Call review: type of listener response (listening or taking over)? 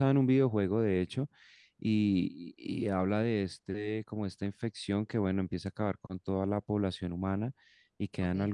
listening